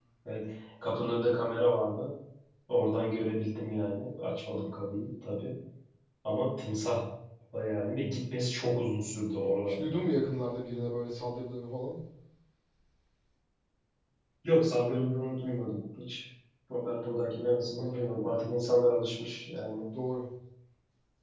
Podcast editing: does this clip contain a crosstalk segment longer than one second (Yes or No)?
No